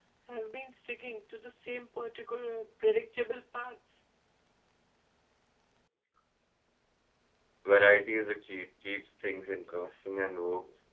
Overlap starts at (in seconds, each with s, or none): none